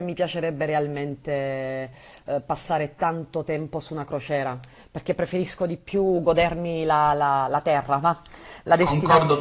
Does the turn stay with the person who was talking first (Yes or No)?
No